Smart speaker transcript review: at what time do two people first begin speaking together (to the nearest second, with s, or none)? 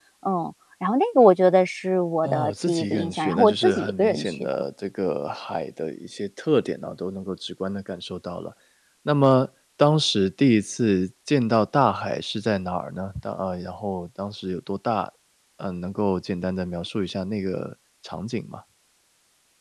2 s